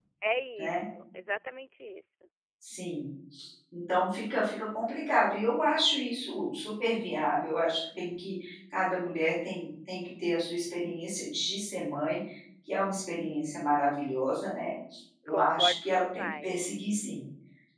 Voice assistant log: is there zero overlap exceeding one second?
No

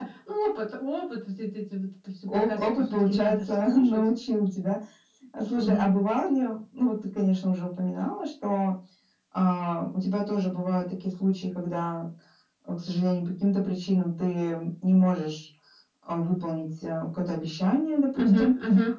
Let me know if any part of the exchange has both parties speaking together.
Yes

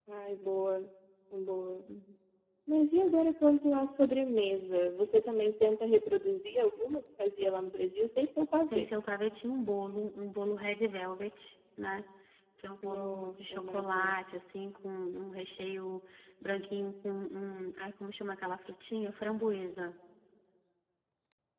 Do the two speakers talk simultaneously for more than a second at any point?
Yes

